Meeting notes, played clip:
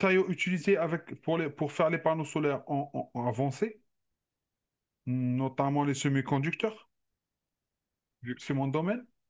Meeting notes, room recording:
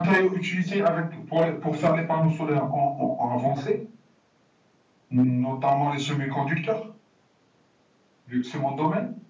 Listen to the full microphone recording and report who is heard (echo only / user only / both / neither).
echo only